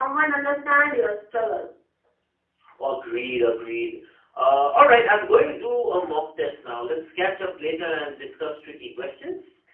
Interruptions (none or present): none